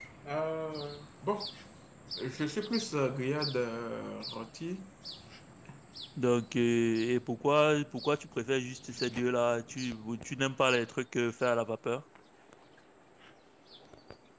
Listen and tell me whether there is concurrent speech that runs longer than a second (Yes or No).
No